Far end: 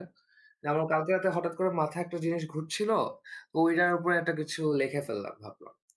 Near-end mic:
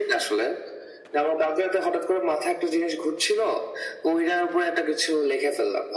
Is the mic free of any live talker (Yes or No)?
Yes